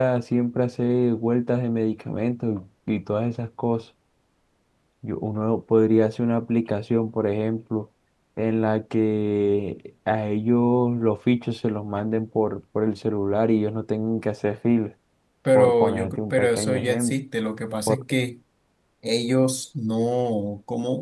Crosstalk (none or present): present